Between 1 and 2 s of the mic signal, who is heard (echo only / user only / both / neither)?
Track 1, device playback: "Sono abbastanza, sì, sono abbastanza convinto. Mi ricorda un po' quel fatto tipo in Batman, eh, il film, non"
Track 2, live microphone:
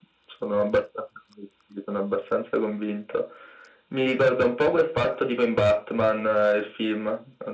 echo only